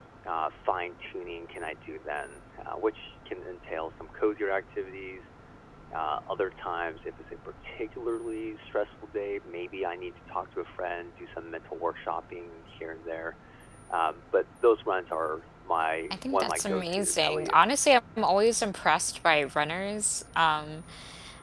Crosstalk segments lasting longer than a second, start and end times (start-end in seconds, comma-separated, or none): 16.1-17.6